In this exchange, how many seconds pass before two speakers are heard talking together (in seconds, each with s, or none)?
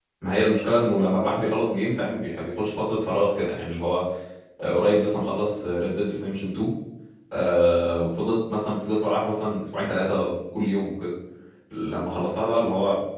none